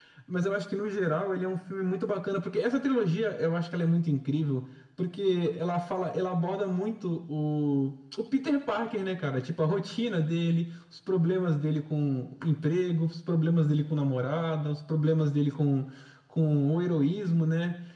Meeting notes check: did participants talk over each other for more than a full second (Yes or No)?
No